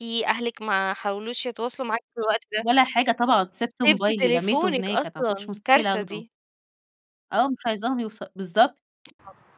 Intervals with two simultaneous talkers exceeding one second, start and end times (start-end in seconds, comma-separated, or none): 3.8-6.2